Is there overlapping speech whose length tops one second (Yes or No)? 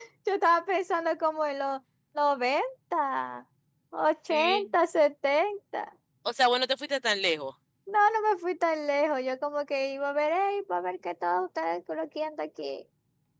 No